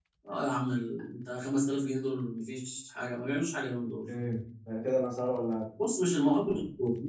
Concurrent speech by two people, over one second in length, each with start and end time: none

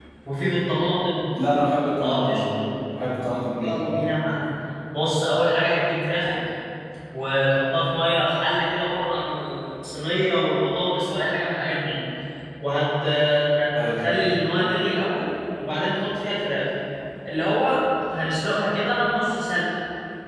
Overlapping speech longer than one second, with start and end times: none

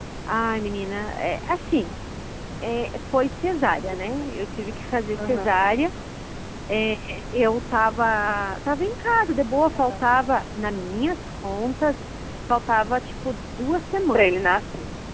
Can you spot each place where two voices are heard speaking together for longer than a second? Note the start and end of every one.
none

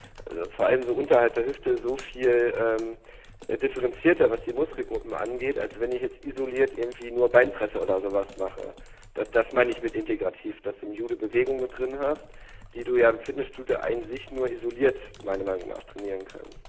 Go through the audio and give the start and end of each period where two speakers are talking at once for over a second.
none

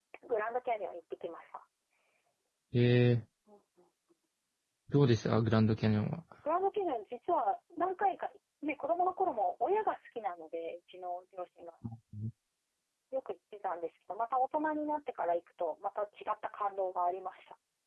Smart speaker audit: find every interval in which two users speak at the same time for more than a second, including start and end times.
none

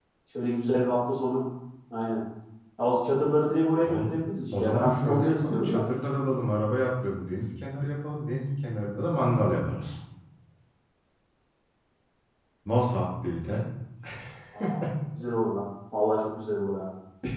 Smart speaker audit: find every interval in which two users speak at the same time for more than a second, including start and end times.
4.5-5.8

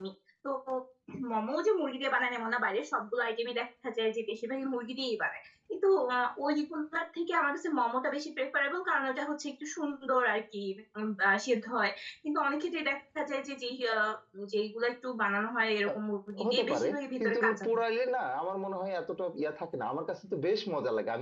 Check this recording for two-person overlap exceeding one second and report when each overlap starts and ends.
16.4-17.7

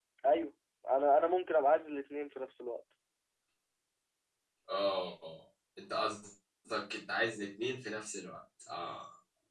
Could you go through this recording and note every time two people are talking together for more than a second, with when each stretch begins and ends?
none

